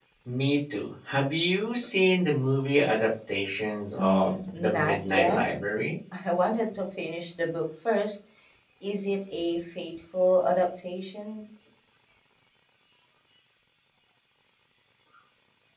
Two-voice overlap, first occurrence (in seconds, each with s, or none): 4.0 s